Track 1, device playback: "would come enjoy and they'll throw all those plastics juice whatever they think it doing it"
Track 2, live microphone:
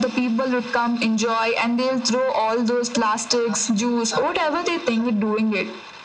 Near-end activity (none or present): none